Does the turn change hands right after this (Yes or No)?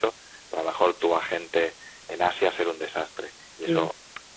No